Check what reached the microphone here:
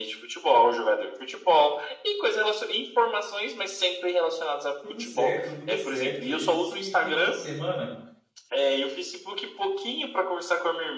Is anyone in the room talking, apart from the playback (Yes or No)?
Yes